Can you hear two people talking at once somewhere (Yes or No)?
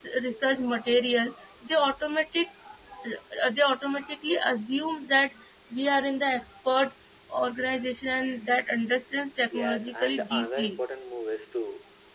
Yes